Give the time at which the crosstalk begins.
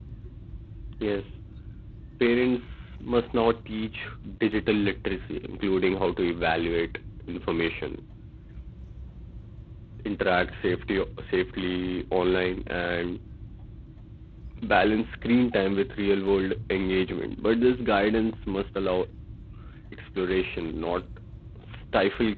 none

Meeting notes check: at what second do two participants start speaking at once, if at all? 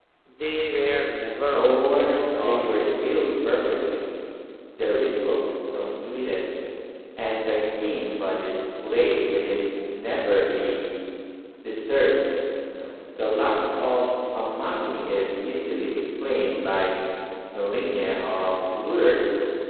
1.6 s

